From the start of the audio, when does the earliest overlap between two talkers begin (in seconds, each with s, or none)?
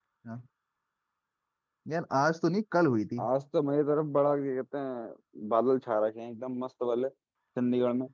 none